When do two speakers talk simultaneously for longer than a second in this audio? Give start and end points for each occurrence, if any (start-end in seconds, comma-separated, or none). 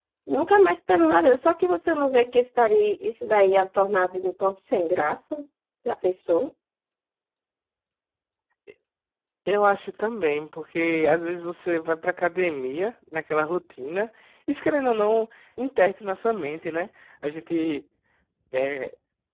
none